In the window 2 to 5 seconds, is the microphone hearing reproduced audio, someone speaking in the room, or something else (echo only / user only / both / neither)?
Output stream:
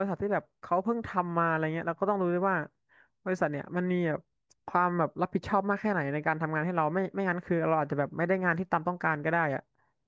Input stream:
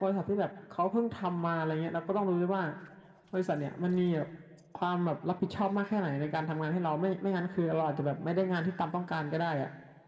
echo only